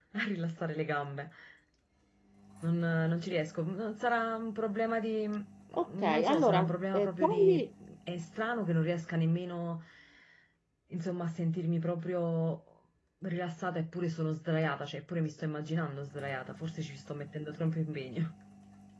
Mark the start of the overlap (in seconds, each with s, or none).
5.7 s